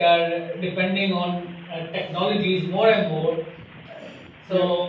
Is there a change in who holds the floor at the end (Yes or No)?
No